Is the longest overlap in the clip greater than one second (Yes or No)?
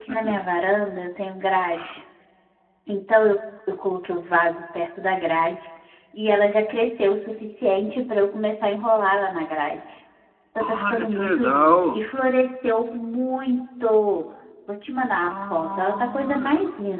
Yes